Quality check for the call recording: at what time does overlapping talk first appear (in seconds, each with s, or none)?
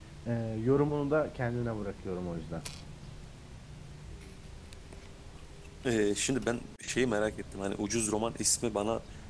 none